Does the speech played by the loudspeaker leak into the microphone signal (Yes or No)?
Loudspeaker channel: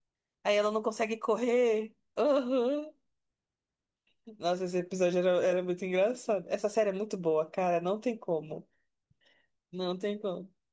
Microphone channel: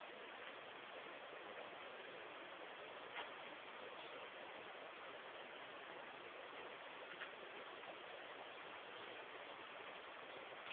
No